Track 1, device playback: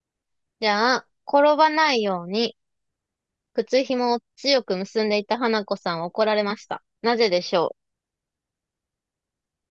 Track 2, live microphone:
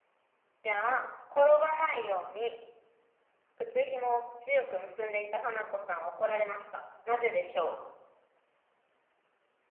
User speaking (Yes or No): No